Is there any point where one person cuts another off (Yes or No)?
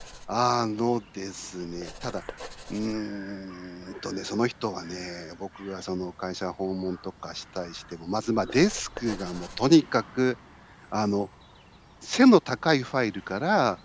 No